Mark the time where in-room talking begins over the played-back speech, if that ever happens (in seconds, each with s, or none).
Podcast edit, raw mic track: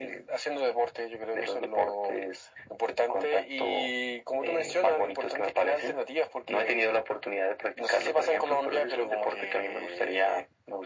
none